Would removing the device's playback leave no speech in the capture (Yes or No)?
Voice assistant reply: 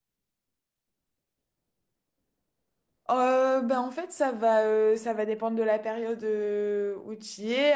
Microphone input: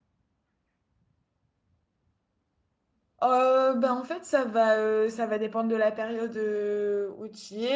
Yes